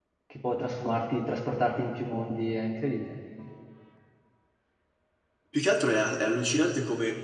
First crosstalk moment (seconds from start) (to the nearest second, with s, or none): none